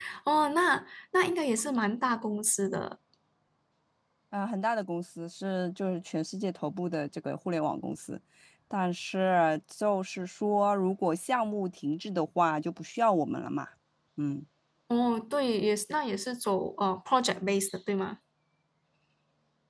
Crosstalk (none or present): none